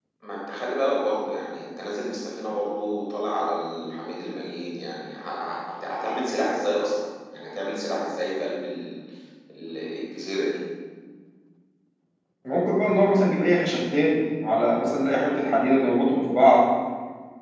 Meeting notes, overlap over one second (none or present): none